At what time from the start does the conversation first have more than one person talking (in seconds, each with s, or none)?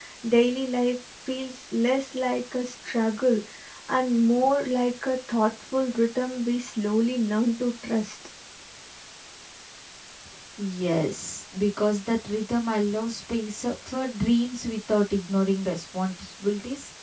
none